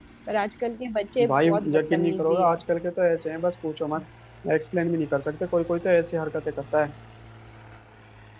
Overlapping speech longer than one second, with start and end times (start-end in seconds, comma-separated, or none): 1.3-2.6